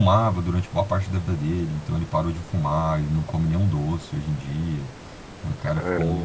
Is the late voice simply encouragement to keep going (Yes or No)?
Yes